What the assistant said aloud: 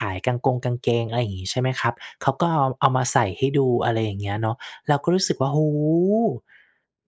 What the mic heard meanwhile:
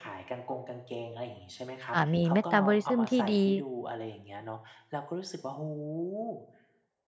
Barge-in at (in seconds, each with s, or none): 1.9 s